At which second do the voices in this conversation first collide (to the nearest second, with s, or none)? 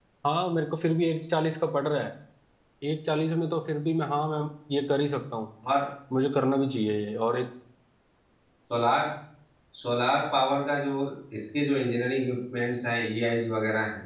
none